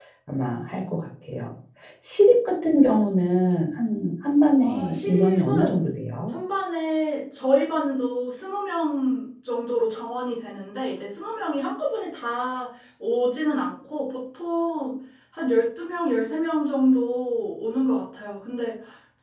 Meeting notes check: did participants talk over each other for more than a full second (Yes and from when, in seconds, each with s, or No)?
Yes, from 4.6 s